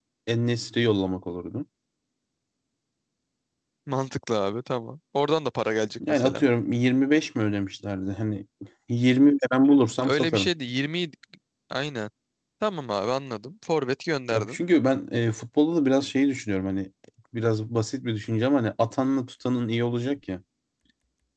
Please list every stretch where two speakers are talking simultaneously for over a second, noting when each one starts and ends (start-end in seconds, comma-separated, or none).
none